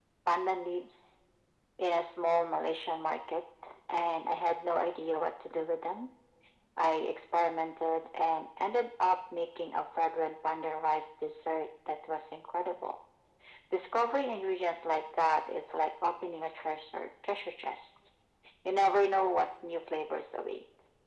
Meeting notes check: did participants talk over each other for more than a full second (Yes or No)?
No